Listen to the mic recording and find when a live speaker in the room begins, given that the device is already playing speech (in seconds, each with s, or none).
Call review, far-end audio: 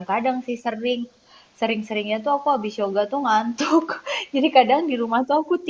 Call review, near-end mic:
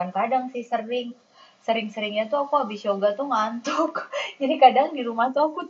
none